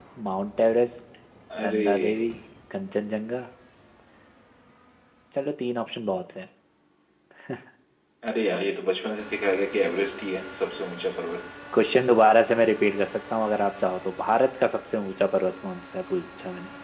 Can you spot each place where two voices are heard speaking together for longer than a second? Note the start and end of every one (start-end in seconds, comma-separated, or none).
none